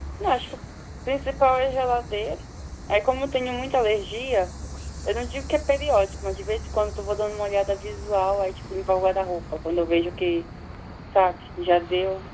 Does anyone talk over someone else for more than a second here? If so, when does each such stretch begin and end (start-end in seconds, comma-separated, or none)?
none